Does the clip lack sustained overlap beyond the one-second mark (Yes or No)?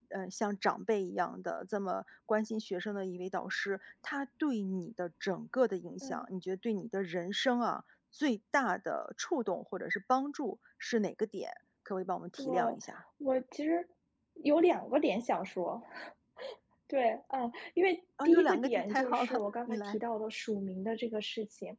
No